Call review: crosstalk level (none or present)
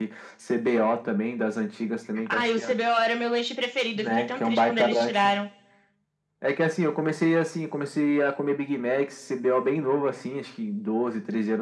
present